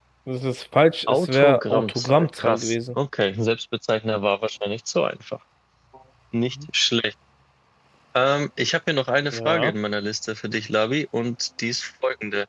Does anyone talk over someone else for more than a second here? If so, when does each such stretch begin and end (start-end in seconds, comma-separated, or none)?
1.1-2.8